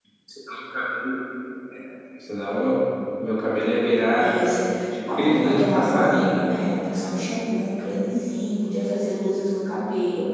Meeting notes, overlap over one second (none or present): present